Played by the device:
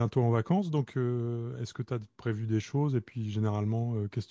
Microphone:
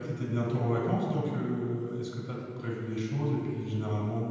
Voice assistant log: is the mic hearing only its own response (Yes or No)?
Yes